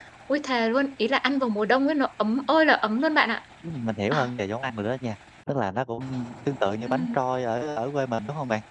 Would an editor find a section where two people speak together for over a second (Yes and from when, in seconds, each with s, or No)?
No